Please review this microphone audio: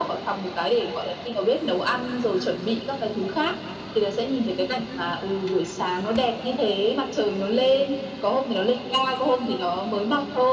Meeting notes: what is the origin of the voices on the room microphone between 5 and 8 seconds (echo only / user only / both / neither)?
echo only